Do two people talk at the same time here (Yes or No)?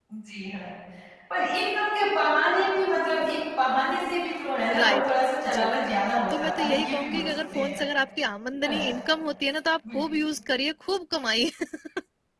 Yes